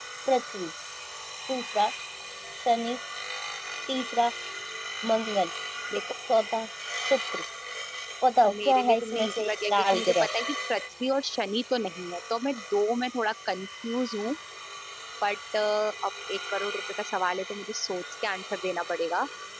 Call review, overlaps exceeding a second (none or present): present